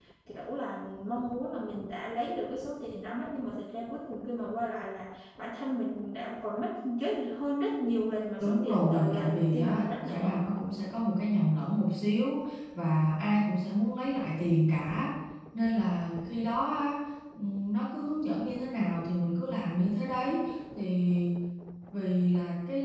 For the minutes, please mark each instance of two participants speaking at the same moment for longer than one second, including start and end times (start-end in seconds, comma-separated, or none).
8.4-10.3